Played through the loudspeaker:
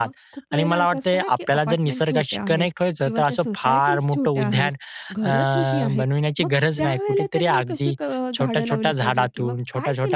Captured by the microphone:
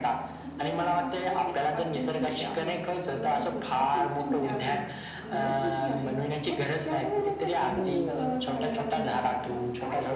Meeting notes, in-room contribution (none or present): present